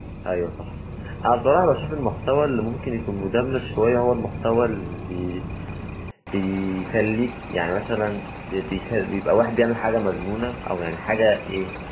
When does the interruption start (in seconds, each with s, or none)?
none